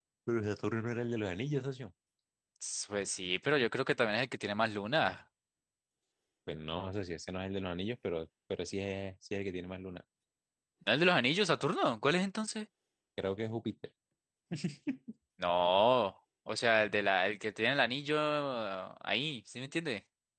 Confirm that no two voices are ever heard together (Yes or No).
Yes